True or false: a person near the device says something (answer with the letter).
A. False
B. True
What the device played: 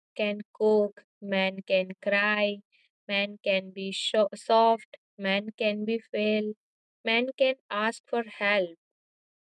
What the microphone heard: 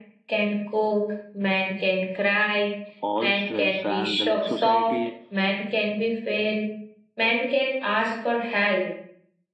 B